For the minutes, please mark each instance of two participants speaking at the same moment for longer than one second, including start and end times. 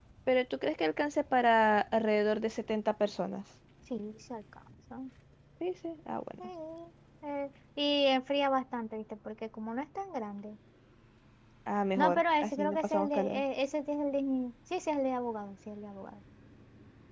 12.0-13.4

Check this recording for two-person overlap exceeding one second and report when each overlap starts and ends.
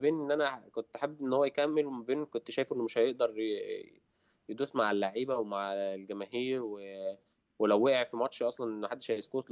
none

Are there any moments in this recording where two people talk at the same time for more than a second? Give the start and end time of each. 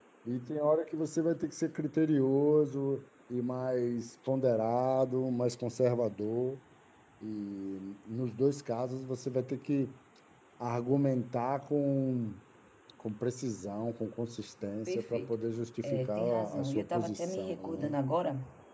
15.8-17.9

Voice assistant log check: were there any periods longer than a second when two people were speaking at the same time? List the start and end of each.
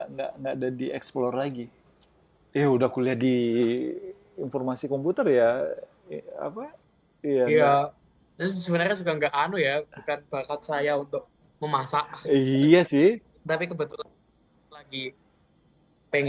none

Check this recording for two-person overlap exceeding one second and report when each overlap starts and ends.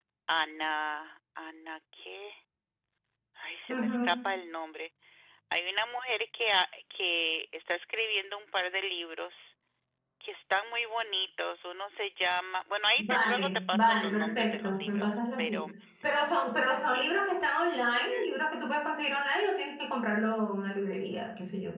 13.0-15.6

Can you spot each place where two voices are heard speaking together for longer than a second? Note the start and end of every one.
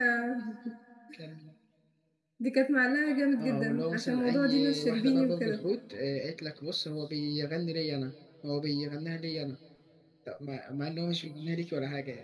3.4-5.6

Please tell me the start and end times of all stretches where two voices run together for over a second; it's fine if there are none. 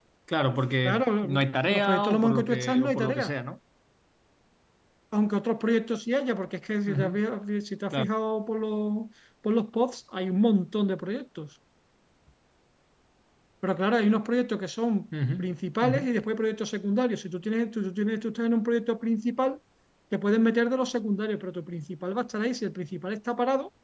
0.8-3.3

